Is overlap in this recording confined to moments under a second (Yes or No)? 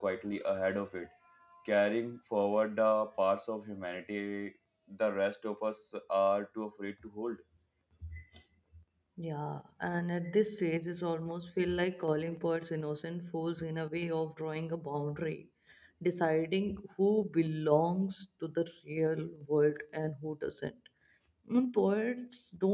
Yes